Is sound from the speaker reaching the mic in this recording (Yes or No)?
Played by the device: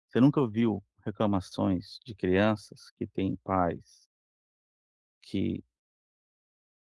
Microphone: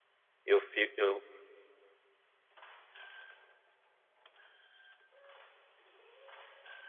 No